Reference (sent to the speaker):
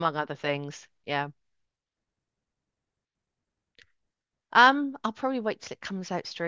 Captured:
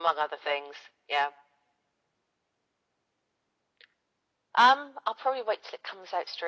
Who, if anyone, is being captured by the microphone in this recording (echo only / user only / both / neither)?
echo only